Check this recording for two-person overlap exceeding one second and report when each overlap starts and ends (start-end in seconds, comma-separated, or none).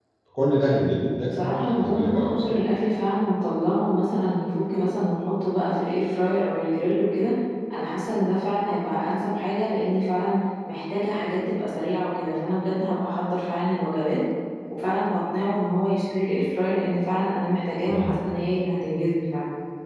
1.2-2.6